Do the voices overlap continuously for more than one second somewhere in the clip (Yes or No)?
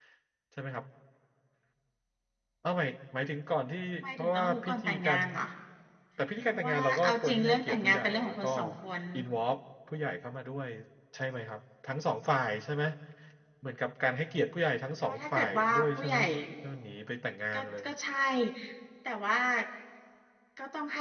Yes